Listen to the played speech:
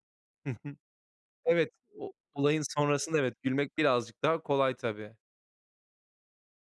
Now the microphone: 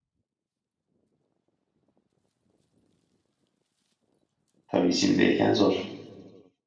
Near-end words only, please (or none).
Tabii, içindeyken zor.